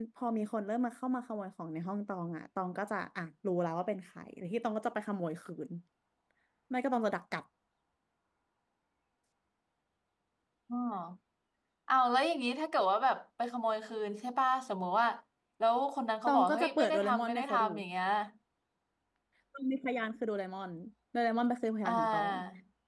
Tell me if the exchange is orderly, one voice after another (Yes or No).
No